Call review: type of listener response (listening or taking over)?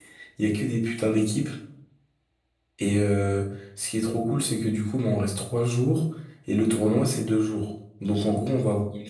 listening